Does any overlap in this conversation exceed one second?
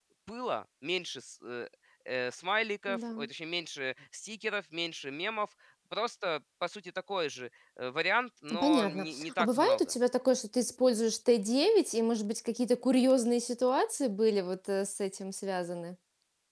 Yes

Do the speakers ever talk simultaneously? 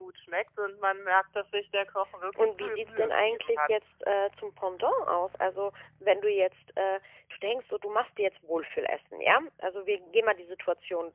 Yes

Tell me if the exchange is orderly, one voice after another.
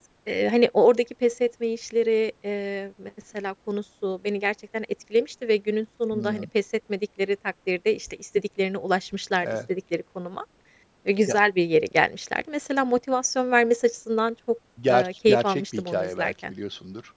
No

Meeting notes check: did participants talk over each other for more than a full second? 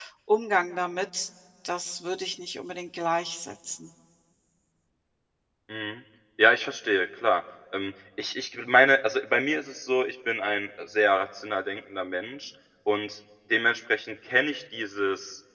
No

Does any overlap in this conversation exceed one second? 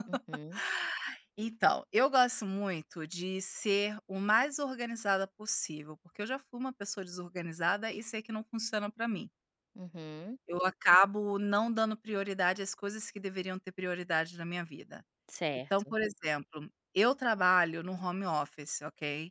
No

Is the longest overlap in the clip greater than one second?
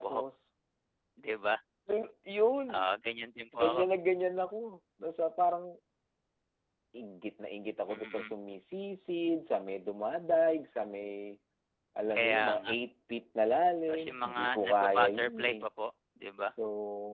Yes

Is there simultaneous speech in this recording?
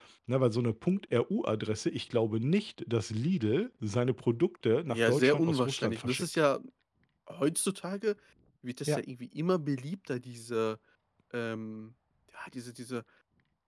Yes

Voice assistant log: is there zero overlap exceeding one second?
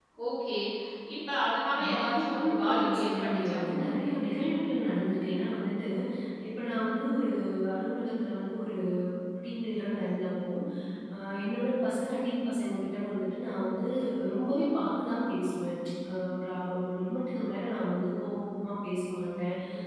No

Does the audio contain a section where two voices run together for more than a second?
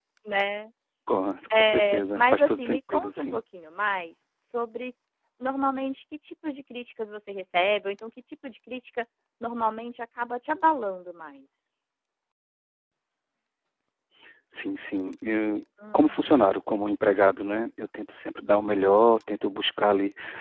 Yes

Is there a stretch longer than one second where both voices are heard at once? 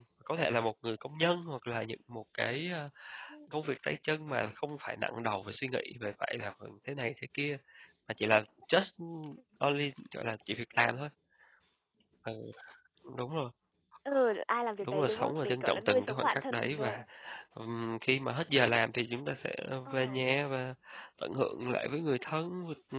Yes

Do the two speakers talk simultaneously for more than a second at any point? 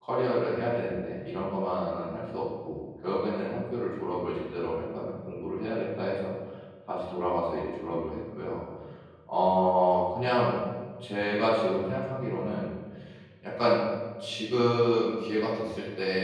No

